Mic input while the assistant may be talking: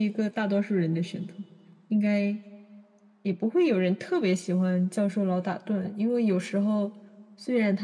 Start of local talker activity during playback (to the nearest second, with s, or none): none